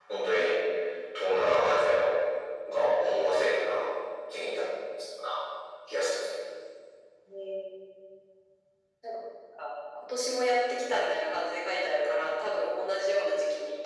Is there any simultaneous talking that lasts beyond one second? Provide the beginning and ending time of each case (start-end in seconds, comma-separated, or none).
none